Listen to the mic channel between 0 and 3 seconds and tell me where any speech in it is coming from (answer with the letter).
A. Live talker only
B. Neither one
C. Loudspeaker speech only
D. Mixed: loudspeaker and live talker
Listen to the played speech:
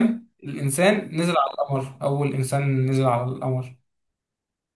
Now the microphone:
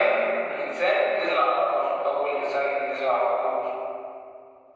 C